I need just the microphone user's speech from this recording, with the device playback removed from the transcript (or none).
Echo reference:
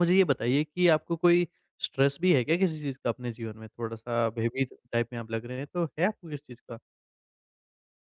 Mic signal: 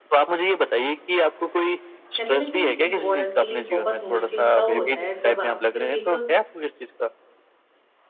कहते हैं ना कि एक औरत के लिए बहुत मुश्किल तब होता है जब आप सिर्फ एक अ